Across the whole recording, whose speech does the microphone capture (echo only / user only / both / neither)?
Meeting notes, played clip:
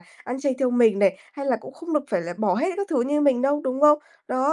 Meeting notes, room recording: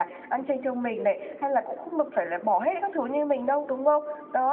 echo only